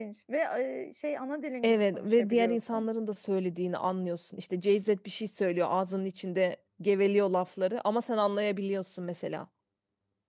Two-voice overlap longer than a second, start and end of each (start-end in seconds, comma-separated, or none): 1.6-2.9